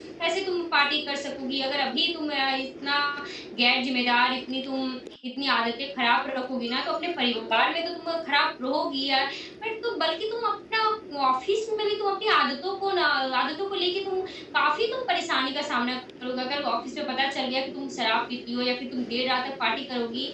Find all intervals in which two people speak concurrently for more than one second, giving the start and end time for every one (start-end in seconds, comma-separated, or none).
none